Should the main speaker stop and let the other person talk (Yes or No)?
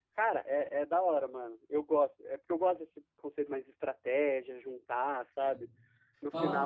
Yes